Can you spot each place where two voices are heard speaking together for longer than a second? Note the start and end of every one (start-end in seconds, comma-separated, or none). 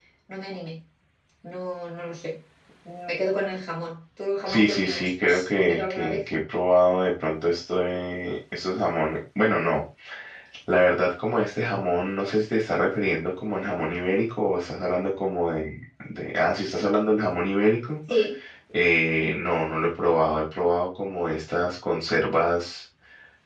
4.5-6.3